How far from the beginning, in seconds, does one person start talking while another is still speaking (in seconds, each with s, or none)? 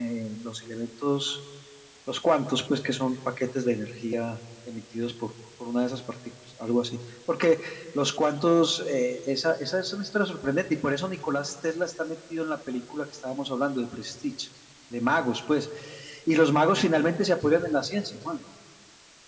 none